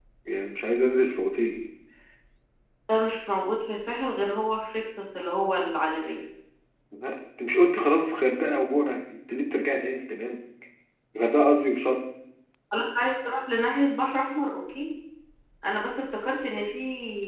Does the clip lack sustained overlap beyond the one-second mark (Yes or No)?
Yes